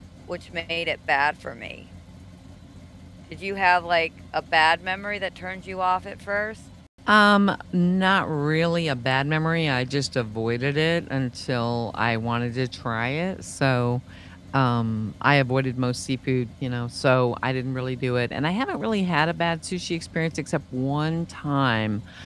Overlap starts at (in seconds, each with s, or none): none